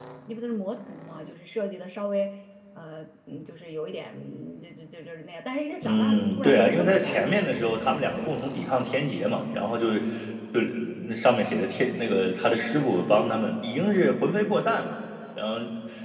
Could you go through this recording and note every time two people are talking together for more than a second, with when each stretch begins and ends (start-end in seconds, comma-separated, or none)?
5.8-7.3